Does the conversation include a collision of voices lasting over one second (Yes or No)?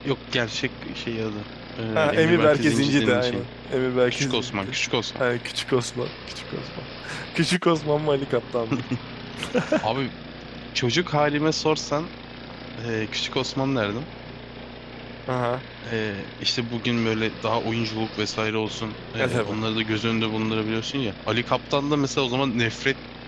Yes